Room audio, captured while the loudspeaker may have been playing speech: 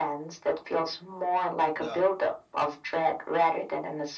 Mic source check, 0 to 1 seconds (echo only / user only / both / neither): echo only